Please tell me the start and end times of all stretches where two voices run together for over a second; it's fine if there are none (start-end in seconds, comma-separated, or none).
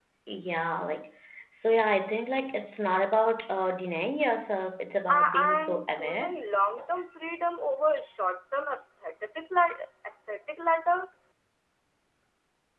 5.1-6.4